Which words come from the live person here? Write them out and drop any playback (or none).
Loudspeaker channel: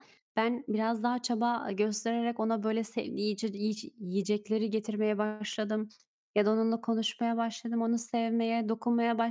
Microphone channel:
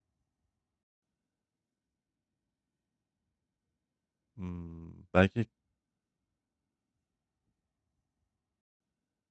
ımm, belki